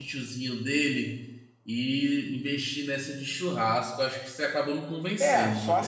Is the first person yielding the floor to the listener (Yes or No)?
Yes